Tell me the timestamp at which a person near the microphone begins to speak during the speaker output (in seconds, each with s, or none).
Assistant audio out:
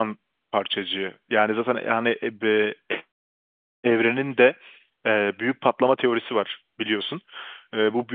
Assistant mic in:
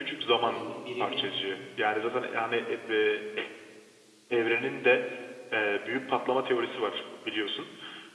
0.4 s